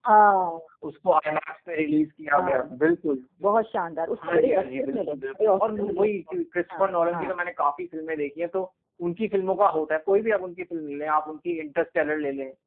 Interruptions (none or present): present